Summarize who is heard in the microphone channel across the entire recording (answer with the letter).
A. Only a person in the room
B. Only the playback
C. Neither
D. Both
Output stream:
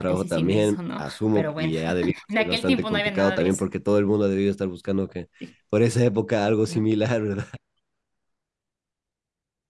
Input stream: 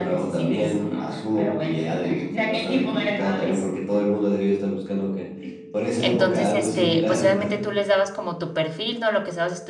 D